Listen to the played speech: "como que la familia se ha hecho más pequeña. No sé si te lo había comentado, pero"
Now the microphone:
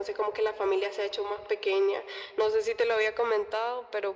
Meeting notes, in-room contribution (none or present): none